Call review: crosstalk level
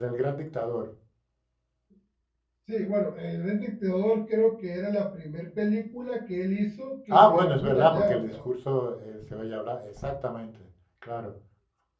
present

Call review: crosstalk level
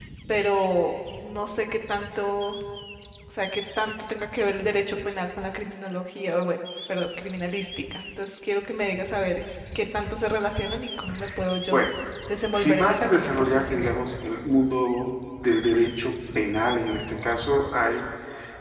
present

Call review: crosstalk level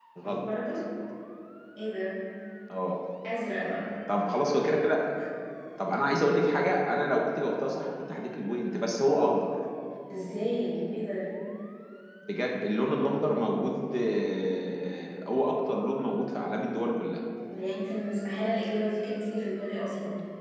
none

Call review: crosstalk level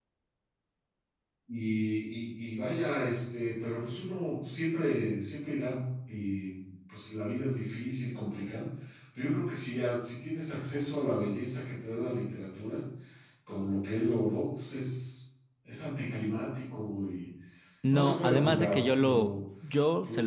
present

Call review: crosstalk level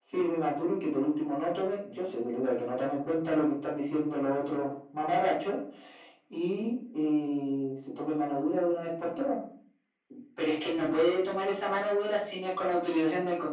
none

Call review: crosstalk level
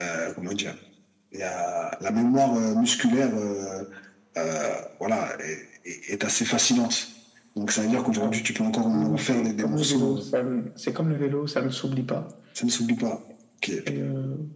present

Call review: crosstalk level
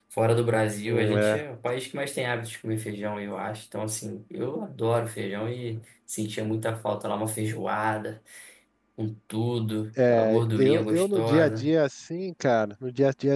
present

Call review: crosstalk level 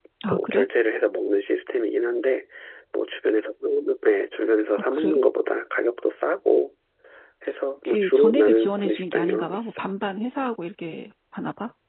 present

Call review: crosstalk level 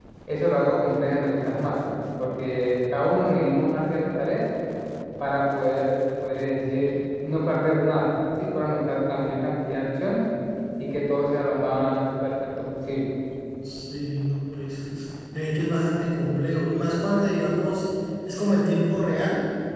none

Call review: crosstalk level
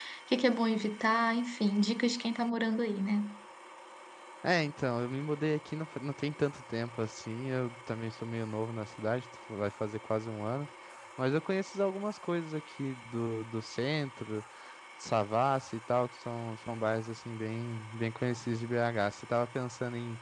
none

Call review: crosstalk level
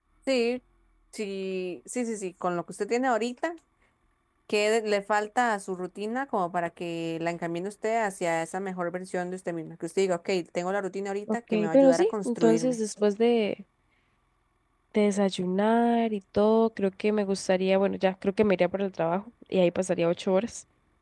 present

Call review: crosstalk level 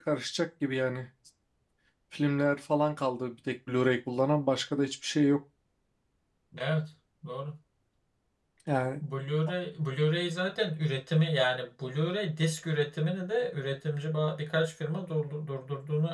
none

